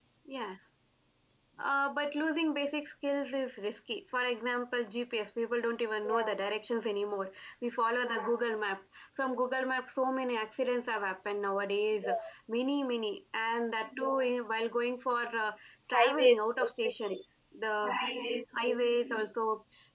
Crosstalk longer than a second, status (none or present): present